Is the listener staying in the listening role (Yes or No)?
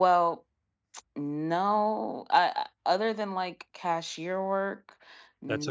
No